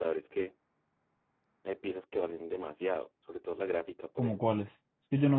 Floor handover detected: Yes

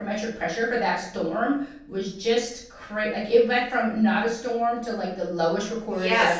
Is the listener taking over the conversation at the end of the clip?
Yes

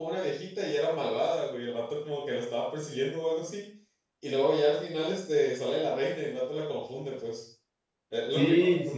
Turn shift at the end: Yes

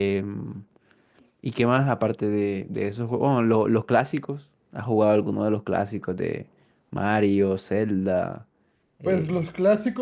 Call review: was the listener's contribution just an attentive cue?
No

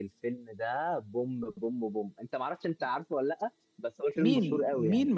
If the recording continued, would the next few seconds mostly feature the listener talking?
Yes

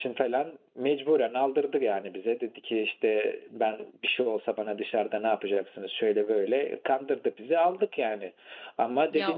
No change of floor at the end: Yes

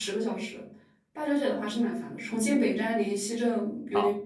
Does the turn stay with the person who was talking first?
No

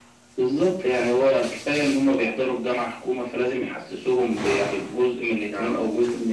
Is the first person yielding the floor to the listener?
No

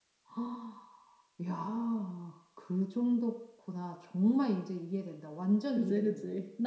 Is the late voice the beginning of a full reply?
Yes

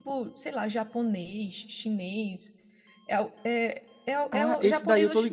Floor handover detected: Yes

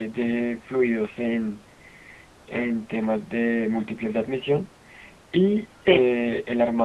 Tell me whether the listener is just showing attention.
Yes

